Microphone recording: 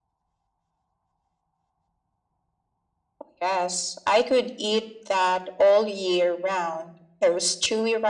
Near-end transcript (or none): none